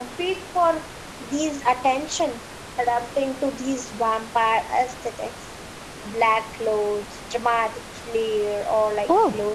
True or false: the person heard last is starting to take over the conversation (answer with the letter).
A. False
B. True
B